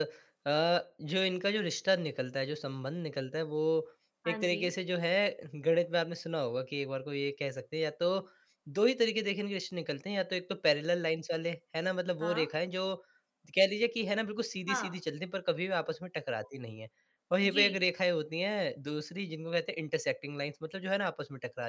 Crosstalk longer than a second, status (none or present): none